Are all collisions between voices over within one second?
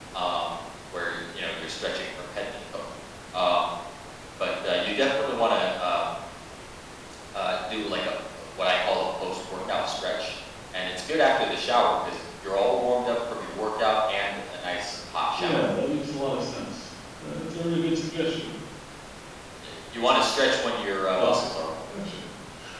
Yes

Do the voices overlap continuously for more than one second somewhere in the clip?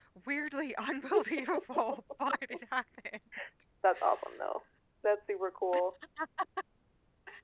No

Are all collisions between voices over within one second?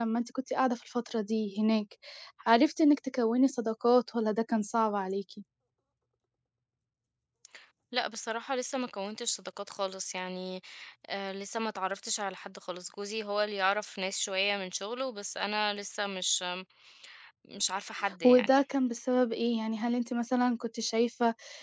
Yes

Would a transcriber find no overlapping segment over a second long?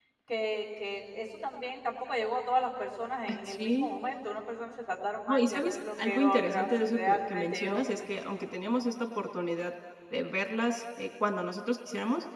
No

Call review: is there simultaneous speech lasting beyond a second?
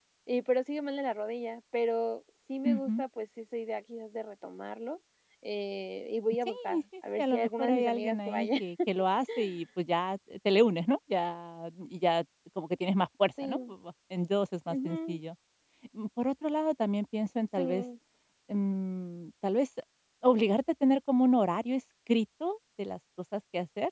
Yes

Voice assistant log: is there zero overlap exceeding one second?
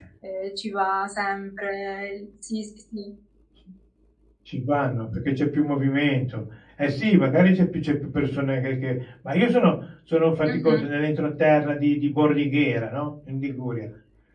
Yes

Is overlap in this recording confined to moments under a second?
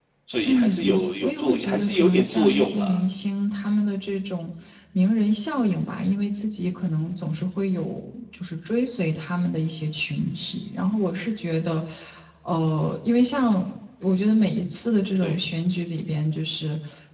No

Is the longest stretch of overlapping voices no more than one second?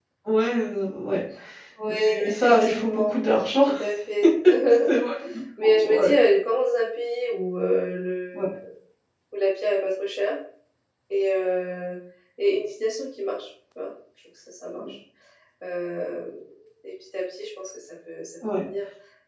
No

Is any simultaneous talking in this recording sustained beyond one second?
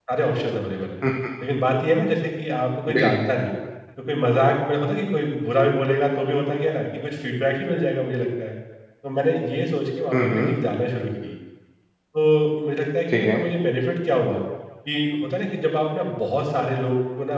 No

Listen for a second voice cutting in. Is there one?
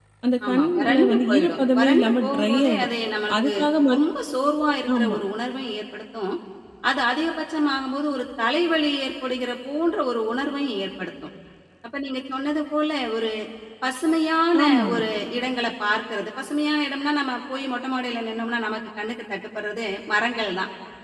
Yes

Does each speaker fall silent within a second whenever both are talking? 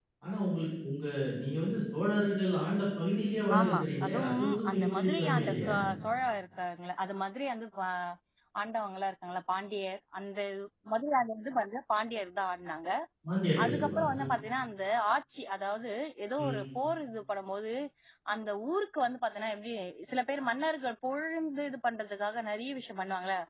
No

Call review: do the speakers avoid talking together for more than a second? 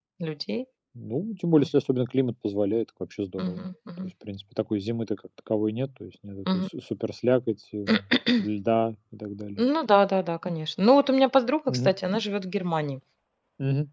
Yes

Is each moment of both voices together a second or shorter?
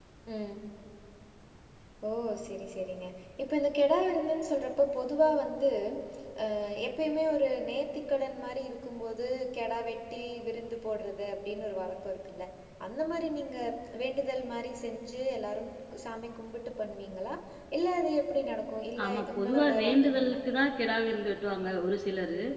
No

